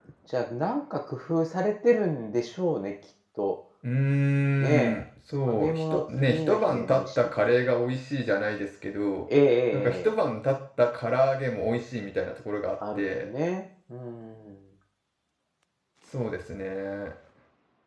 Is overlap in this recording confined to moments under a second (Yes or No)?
No